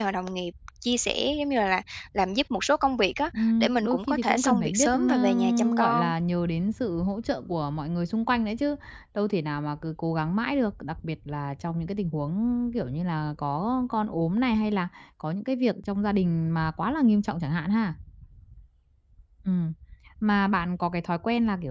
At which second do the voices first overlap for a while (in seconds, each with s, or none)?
3.3 s